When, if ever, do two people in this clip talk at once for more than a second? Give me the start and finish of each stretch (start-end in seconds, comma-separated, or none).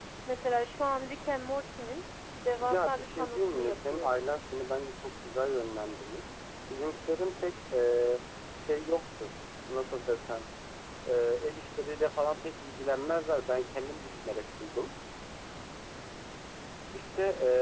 2.6-4.2